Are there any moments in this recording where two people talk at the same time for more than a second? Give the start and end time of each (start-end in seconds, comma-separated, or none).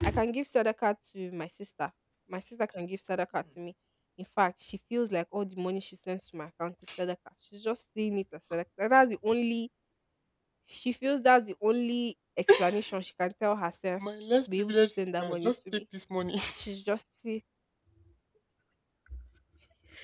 14.6-15.8